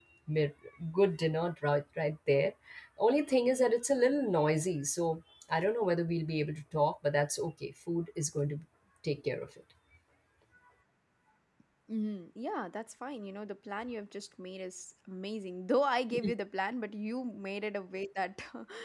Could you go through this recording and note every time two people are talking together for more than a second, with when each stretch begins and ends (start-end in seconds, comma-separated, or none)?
none